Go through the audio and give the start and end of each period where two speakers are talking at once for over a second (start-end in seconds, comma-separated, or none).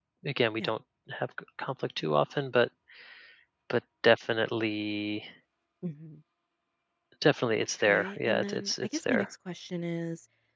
7.8-9.3